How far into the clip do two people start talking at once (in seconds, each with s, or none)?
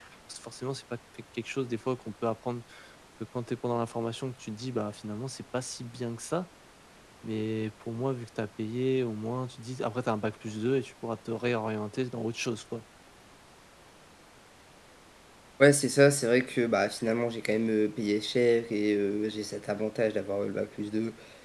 none